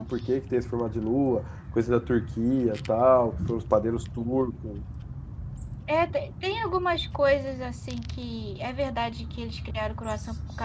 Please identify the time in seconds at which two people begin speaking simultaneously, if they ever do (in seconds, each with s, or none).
none